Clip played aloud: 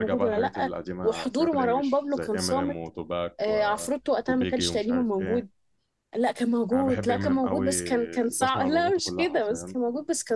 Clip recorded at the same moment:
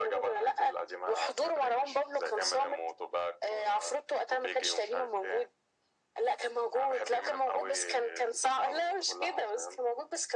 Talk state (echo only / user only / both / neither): echo only